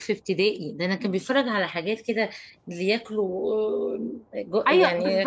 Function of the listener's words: taking over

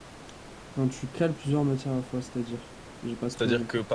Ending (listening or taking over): taking over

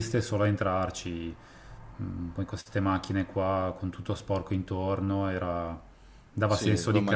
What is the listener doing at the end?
taking over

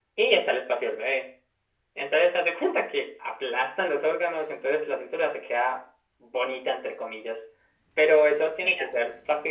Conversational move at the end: listening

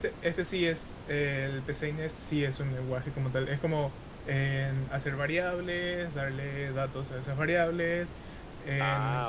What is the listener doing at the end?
listening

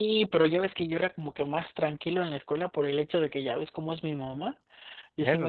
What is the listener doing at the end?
listening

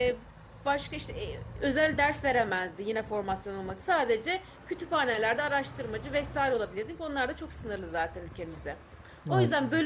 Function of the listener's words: listening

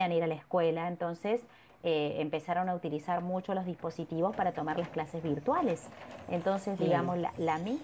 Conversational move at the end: listening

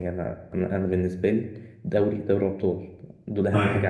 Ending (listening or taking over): listening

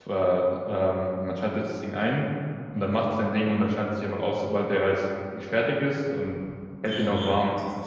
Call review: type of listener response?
taking over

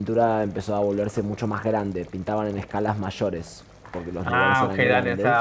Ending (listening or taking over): taking over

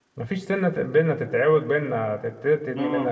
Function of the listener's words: listening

